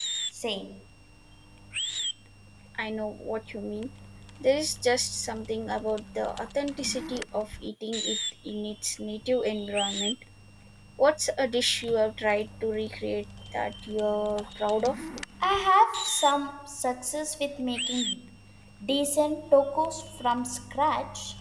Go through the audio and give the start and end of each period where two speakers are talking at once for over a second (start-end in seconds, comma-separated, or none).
none